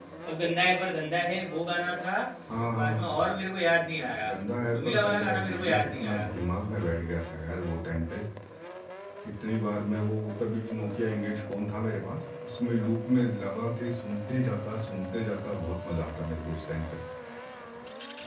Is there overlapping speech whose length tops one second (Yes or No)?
Yes